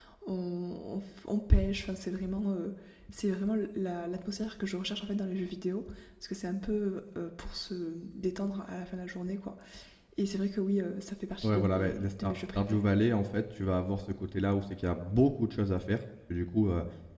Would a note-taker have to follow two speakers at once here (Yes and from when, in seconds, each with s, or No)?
Yes, from 11.4 s